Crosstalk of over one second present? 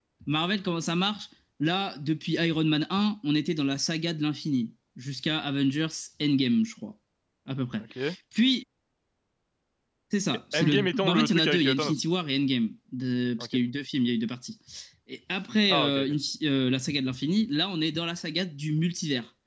Yes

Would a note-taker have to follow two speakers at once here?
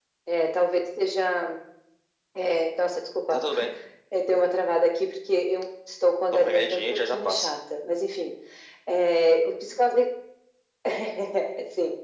Yes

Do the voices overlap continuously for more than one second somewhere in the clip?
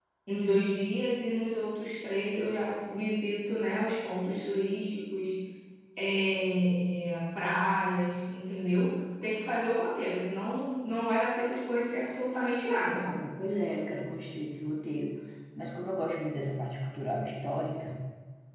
No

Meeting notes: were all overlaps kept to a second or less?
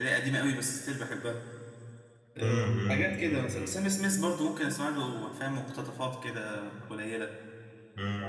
No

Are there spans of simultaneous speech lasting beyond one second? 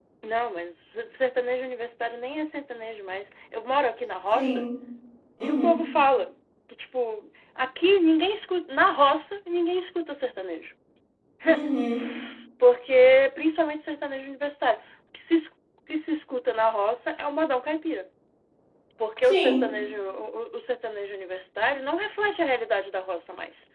No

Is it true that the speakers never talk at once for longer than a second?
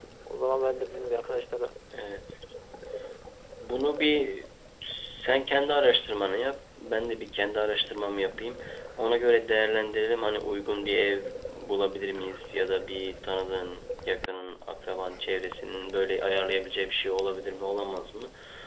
Yes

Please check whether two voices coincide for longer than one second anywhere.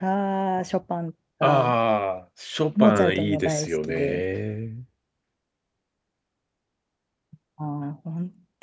Yes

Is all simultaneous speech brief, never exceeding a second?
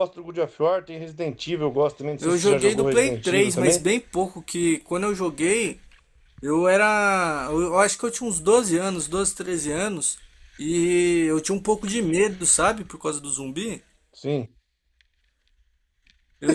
No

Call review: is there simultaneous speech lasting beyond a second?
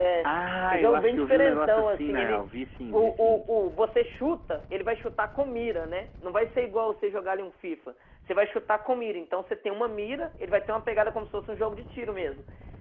Yes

